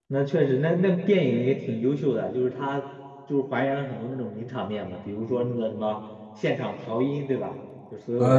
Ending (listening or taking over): taking over